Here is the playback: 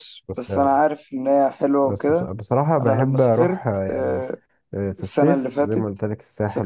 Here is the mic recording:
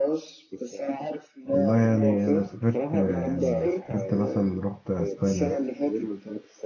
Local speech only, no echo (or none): والله يعني أنا سافرت يعني سافرت مثلا رحت أسبانيا